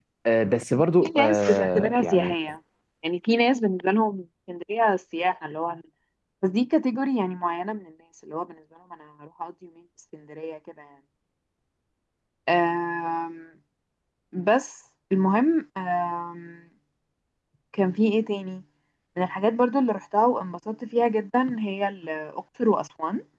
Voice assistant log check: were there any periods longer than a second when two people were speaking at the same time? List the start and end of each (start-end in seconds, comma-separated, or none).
1.0-2.3